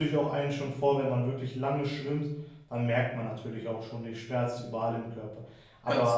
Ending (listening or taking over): listening